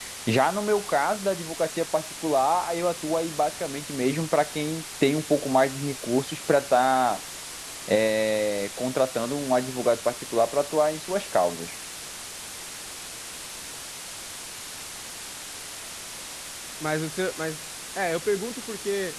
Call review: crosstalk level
none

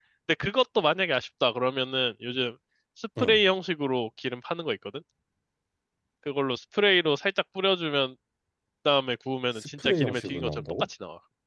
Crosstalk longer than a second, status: present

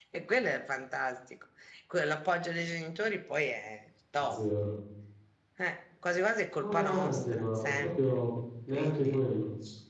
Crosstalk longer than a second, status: present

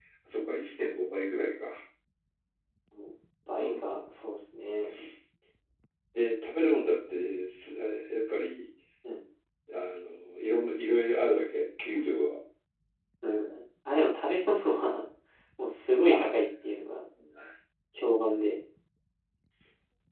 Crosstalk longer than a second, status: none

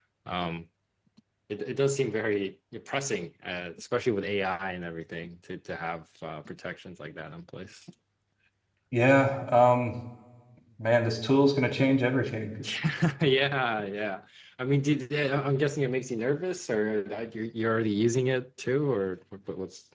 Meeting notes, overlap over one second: none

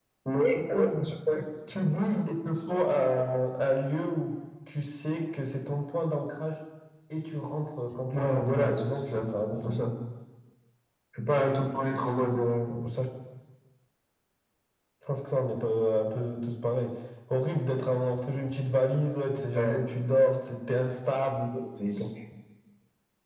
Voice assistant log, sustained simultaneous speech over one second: present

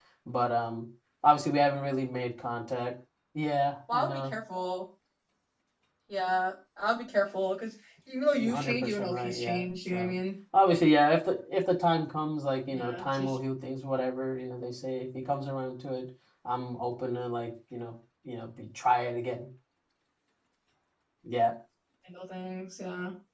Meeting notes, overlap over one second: present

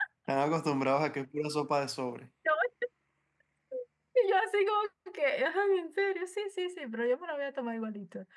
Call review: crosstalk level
none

